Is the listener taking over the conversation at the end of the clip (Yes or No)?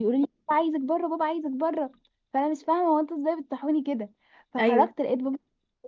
No